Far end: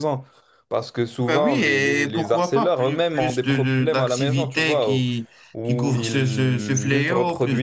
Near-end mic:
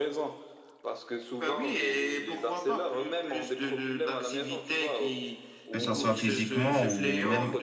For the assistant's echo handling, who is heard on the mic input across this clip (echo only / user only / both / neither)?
both